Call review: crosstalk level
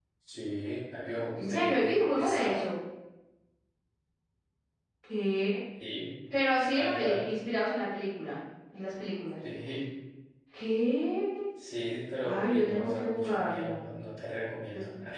present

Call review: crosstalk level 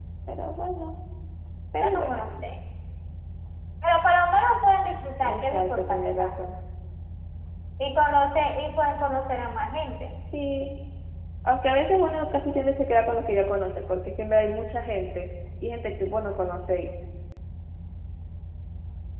present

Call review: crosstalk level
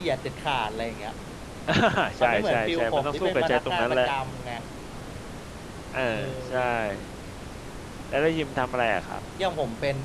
present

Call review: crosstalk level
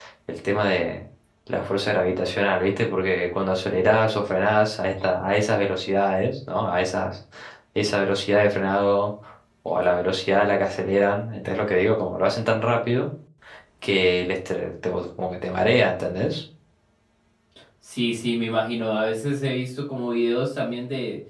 none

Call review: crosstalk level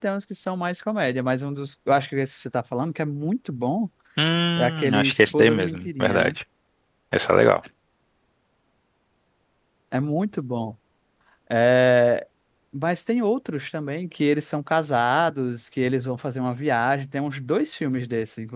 present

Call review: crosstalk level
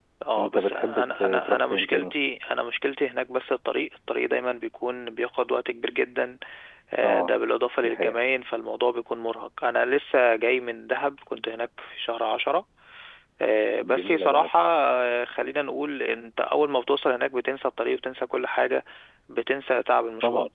present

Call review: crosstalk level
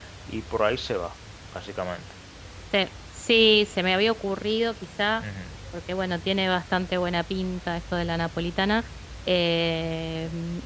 none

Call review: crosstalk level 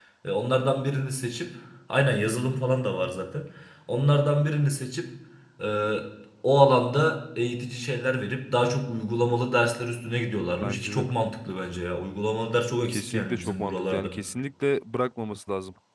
present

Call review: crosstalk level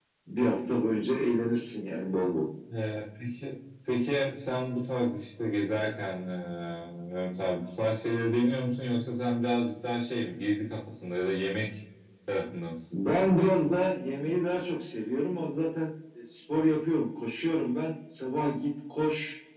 none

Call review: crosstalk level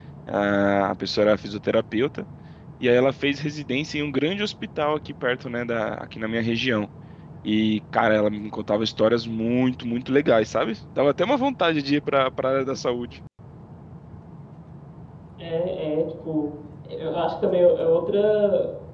none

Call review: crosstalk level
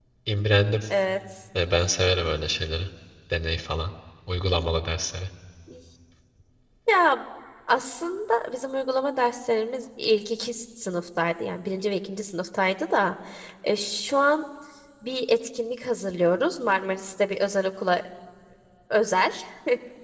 none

